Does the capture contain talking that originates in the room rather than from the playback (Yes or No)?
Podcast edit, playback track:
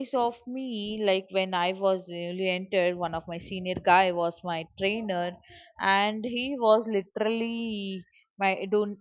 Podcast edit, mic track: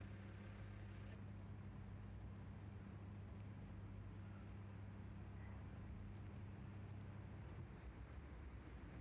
No